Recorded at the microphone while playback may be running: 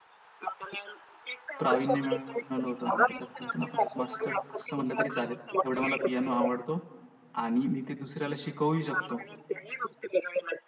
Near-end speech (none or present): present